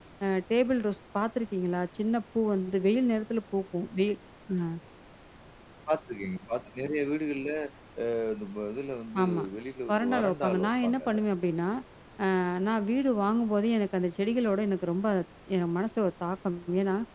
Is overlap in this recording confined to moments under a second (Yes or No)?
No